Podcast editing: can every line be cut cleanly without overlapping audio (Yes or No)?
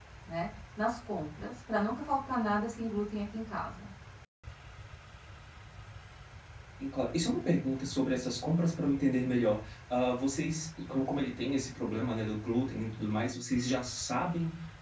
Yes